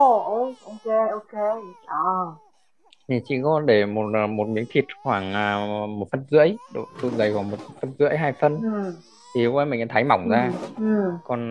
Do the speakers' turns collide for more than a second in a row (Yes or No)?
No